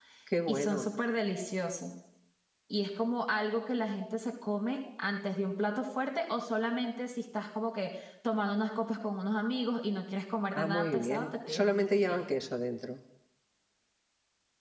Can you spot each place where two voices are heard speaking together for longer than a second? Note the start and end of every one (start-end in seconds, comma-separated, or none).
10.6-12.2